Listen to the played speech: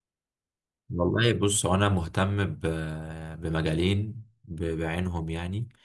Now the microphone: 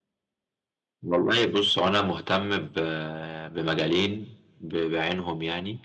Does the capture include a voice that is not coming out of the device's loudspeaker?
No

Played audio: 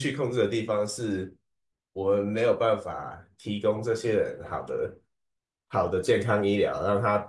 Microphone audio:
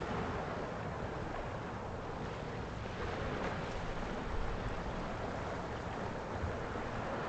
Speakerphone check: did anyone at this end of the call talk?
No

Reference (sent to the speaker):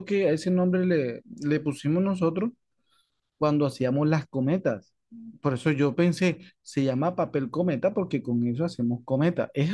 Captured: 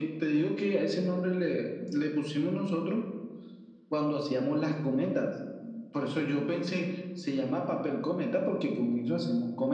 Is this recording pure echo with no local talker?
Yes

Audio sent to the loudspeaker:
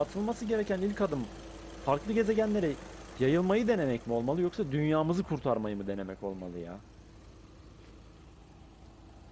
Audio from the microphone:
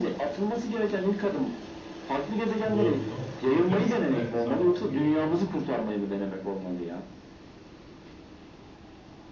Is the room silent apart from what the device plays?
No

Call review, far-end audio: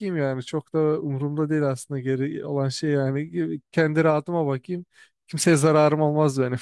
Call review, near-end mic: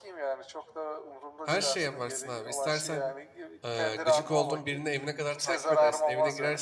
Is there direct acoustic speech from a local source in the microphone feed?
Yes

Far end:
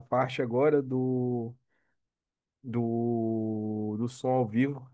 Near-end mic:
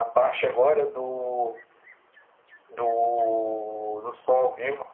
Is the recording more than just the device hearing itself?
No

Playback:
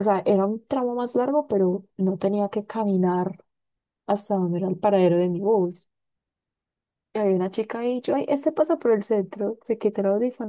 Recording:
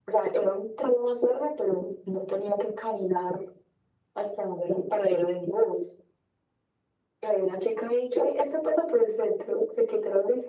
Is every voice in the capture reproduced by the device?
Yes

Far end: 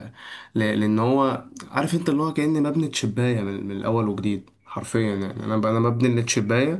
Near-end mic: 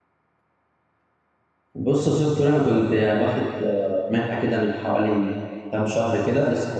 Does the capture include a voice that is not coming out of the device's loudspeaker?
Yes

